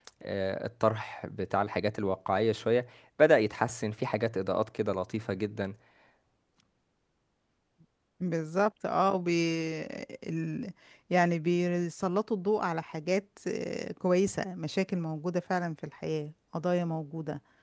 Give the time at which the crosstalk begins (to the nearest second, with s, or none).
none